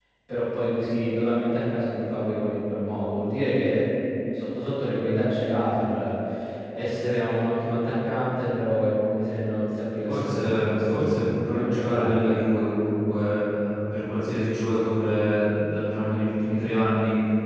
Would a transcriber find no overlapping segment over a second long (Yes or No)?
No